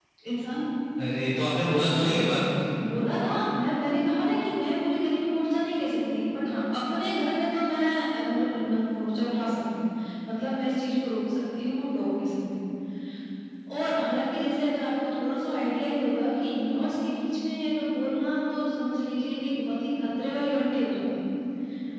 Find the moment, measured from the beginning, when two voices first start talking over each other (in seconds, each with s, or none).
none